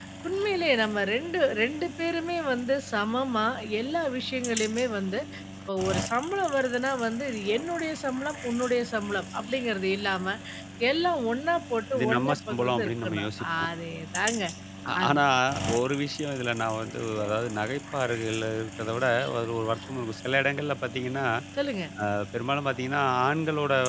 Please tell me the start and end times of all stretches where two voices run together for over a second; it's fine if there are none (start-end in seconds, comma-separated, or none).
11.9-13.7